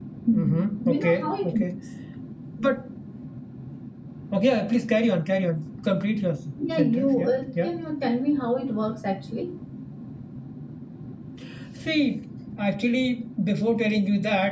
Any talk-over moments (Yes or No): Yes